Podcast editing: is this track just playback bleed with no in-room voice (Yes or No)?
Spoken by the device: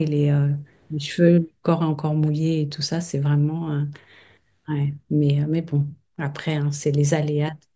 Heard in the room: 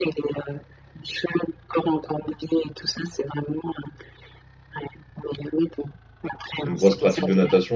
No